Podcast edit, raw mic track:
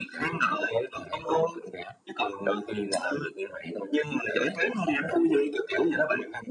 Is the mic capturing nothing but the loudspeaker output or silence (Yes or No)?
Yes